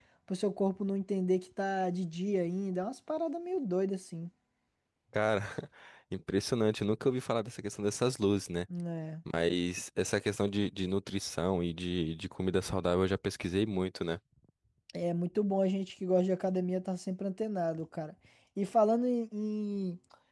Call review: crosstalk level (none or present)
none